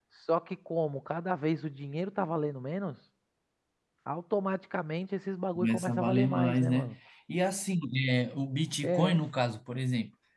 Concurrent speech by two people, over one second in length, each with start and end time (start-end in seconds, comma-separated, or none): 5.5-7.0